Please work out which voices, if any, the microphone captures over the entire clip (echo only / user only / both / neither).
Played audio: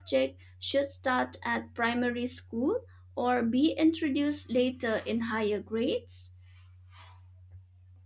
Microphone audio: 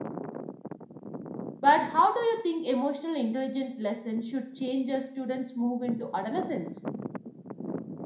user only